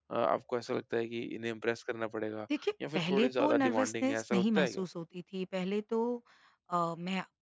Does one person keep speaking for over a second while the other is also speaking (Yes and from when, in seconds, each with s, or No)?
Yes, from 2.5 s